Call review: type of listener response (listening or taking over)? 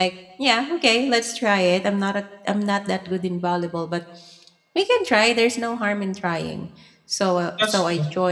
listening